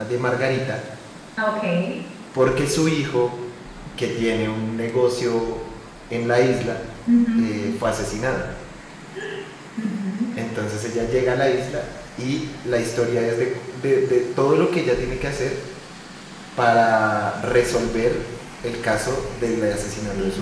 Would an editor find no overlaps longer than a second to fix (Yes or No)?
Yes